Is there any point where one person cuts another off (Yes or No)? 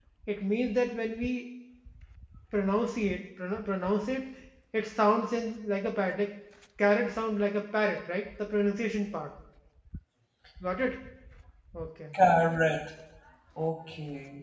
No